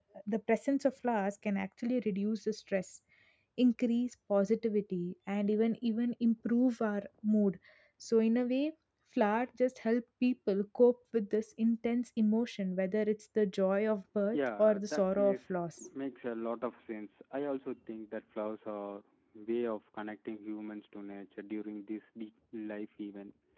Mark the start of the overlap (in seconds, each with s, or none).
14.3 s